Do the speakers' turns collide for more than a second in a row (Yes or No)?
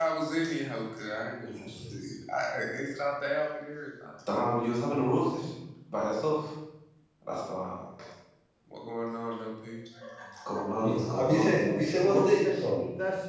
Yes